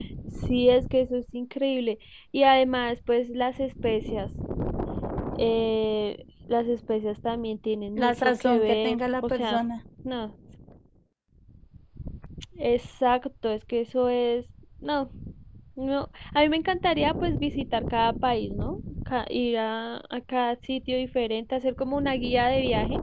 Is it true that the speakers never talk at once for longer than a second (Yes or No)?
No